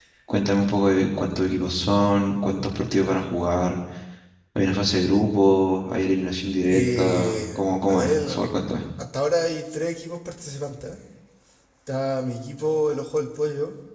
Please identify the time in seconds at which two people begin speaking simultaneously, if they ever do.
6.6 s

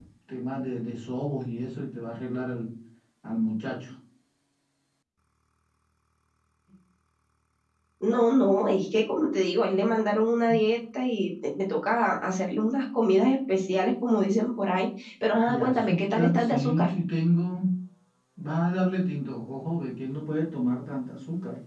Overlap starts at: 15.4 s

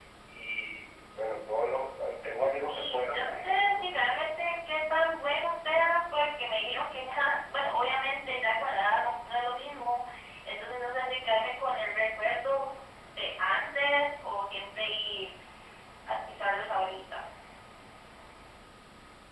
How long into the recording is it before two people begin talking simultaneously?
2.5 s

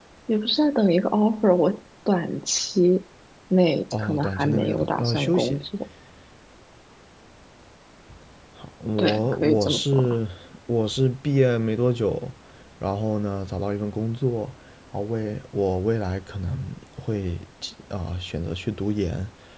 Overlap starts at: 3.9 s

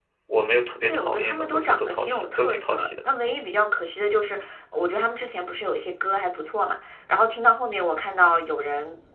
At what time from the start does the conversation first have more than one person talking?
0.8 s

